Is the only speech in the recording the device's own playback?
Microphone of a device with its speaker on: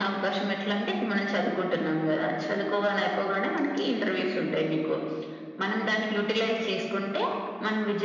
Yes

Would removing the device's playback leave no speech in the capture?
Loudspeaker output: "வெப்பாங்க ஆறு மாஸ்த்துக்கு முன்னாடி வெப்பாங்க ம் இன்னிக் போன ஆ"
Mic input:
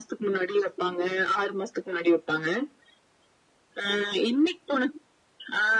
Yes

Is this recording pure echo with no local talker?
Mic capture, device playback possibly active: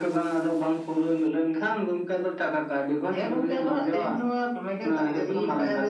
Yes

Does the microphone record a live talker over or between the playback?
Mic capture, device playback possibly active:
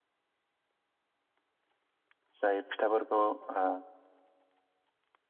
Yes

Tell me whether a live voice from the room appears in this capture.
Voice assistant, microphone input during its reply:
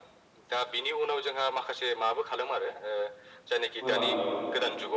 Yes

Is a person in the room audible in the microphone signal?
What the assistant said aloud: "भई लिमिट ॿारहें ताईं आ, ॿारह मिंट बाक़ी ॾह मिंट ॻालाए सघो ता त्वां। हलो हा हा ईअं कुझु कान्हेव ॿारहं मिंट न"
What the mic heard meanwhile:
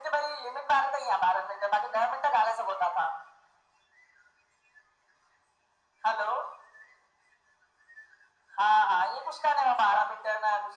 No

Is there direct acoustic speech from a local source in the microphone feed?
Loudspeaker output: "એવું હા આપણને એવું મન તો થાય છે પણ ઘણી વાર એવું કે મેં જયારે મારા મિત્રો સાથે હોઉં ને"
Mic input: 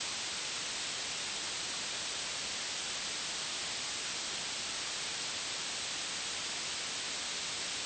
No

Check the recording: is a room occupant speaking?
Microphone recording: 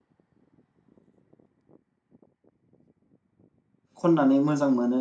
Yes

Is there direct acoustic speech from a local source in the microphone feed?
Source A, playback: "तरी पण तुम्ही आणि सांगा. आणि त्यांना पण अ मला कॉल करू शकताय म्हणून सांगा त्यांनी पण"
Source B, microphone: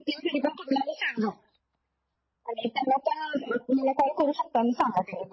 No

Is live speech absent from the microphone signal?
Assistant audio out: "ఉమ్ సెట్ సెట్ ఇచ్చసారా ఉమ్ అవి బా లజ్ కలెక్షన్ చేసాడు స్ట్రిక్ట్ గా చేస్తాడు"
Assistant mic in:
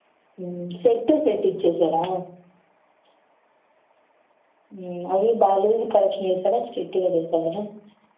Yes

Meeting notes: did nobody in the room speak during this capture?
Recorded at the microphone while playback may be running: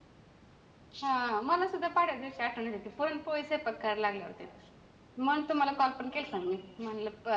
No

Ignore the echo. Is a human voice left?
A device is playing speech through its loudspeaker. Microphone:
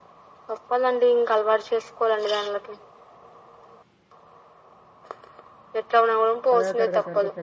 Yes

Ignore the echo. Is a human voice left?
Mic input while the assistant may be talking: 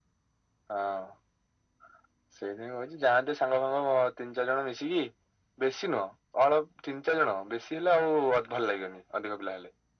No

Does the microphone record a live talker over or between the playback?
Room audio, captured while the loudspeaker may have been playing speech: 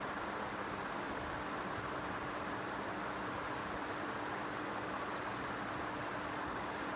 No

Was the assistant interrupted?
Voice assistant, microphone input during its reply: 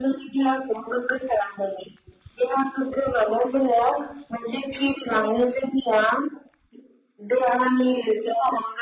No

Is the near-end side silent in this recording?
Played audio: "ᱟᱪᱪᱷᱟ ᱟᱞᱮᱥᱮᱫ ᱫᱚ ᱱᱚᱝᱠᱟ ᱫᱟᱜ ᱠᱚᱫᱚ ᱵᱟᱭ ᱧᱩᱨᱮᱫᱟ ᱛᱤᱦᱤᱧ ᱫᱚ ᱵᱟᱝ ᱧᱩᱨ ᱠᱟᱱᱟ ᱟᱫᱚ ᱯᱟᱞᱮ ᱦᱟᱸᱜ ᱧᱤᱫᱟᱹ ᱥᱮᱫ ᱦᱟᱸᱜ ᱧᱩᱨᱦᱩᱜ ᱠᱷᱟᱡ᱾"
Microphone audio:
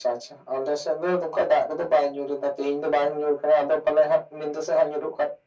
Yes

